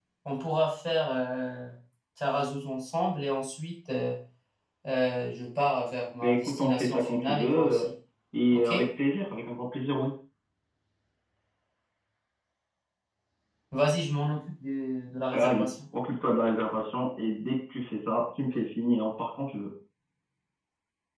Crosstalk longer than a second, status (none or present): present